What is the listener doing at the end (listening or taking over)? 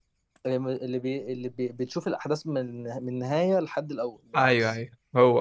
taking over